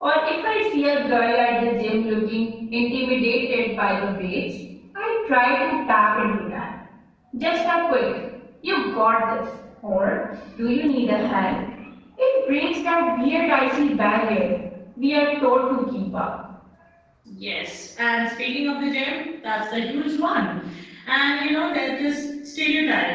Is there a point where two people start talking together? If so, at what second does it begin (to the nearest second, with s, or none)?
none